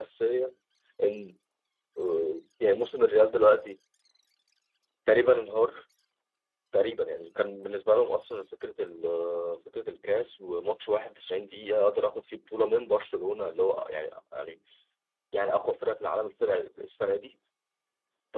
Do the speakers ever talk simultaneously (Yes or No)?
No